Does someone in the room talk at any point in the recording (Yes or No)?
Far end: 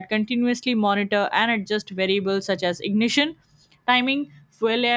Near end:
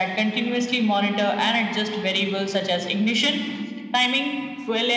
No